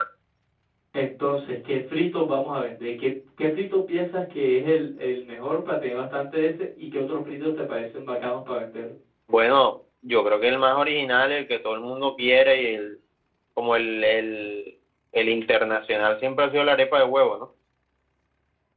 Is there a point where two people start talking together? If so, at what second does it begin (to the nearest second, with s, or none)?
none